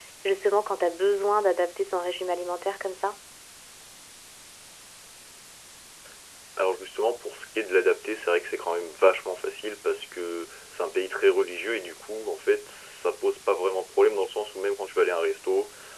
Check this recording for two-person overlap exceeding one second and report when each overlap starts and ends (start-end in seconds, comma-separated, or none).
none